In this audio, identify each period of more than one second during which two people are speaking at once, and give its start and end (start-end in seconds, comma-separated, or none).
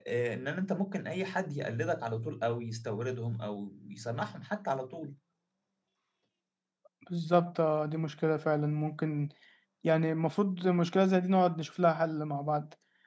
none